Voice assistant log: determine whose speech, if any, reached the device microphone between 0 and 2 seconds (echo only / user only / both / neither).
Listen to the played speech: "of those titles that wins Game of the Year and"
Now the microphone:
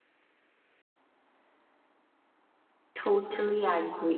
neither